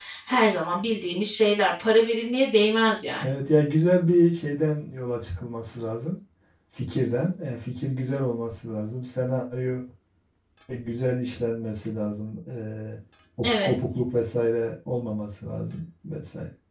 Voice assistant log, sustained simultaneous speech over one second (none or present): none